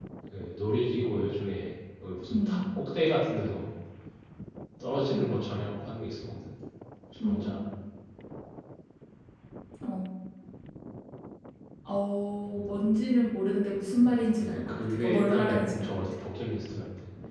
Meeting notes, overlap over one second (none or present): present